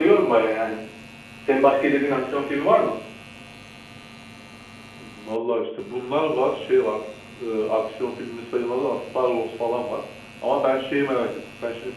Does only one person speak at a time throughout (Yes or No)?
Yes